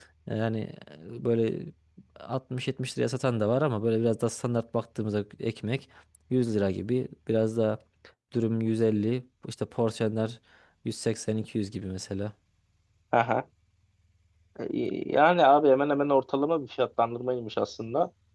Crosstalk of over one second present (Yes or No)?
No